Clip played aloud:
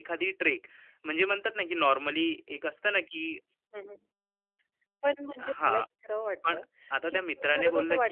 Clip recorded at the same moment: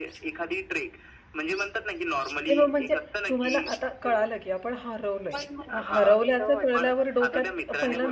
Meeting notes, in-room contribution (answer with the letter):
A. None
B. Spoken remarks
B